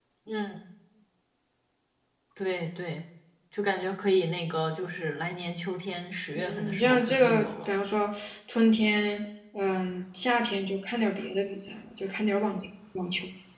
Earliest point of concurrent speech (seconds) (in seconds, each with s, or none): 6.4 s